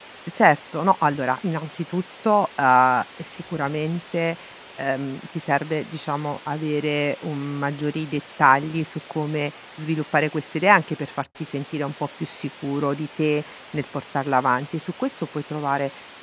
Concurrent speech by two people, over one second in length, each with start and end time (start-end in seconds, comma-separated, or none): none